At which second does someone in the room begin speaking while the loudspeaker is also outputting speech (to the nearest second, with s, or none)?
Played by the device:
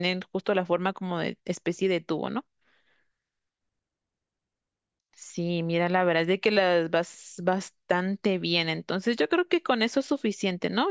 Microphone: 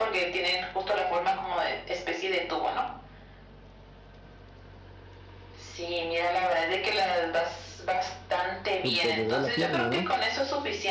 9 s